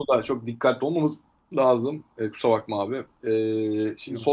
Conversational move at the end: listening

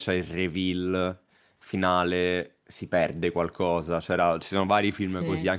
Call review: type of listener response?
listening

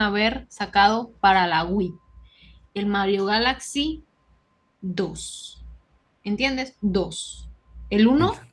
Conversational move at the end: listening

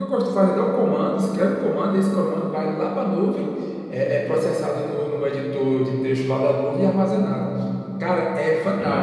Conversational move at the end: listening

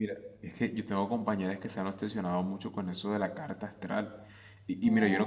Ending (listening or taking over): listening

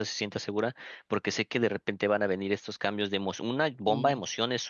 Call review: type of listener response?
listening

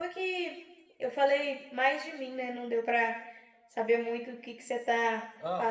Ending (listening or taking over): taking over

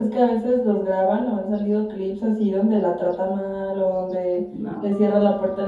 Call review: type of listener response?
listening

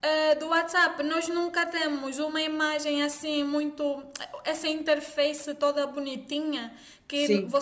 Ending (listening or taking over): listening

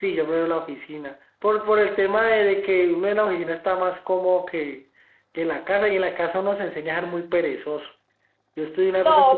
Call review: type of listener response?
listening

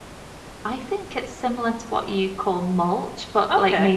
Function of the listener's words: listening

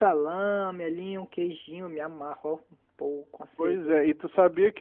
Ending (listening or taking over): taking over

